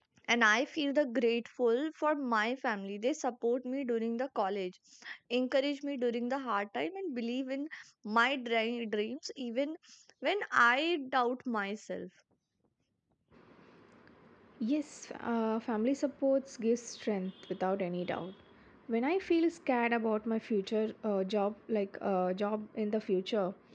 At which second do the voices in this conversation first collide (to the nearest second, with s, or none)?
none